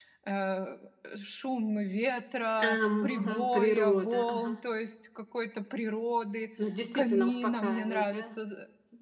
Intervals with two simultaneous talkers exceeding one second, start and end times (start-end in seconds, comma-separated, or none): 2.6-4.5, 6.9-8.2